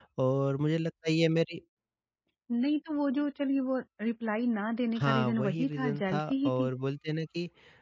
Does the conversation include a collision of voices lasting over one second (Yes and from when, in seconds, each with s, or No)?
Yes, from 5.0 s